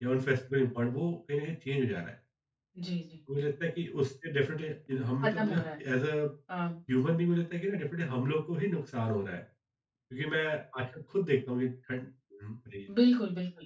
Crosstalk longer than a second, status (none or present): none